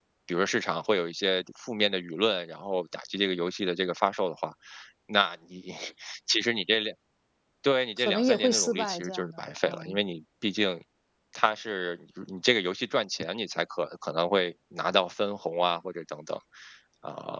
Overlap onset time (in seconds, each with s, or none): 8.0 s